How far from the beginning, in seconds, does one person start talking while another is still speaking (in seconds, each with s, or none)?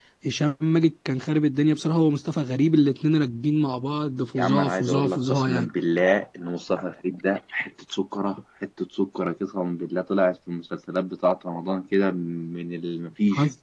4.4 s